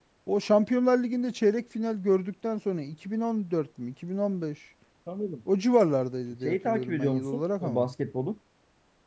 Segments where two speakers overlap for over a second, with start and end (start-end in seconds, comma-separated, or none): 6.4-7.9